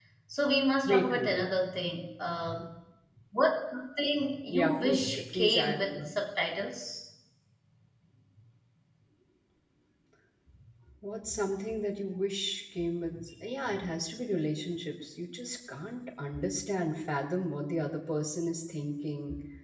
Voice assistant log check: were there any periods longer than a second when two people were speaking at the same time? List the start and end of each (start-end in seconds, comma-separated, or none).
4.5-6.1